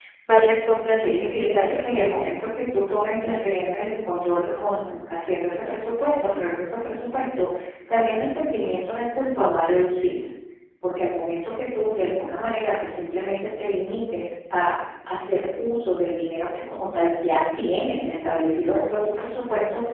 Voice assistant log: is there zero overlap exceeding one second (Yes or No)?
No